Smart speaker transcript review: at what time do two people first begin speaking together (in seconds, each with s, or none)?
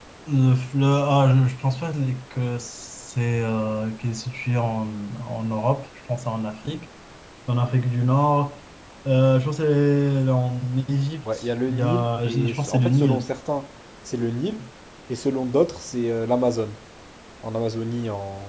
11.7 s